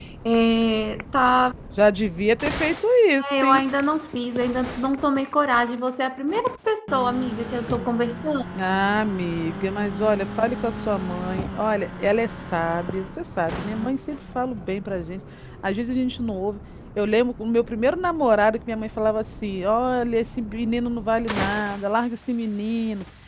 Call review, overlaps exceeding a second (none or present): none